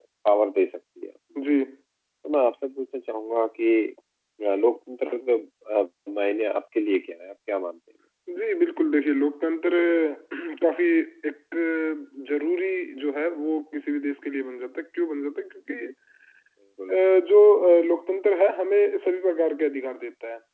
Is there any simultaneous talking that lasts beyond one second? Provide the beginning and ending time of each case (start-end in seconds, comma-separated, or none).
none